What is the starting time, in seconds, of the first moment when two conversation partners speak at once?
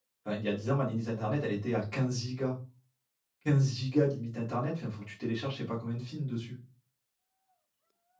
none

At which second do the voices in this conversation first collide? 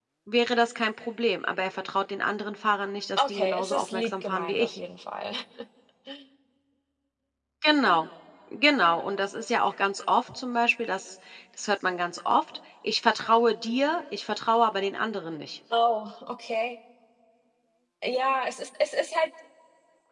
3 s

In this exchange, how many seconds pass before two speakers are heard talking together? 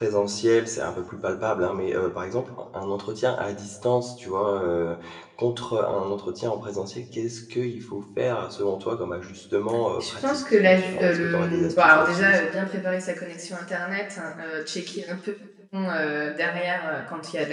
10 s

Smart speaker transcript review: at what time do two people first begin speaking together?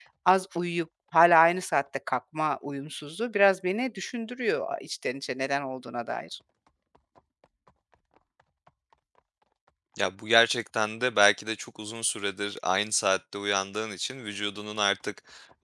none

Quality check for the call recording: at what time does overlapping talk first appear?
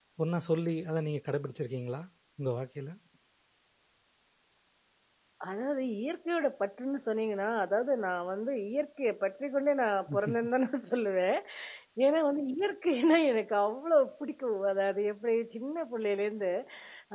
none

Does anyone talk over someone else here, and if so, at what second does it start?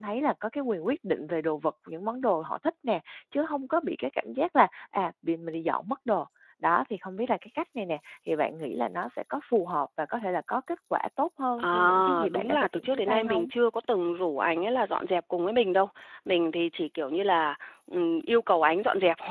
12 s

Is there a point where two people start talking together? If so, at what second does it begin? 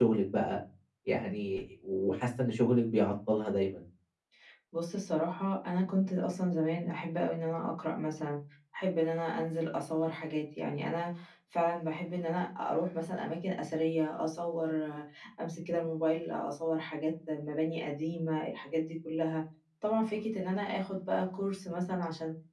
none

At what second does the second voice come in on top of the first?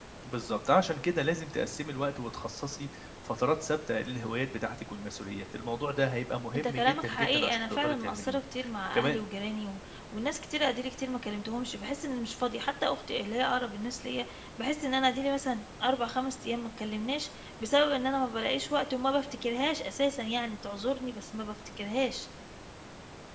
7 s

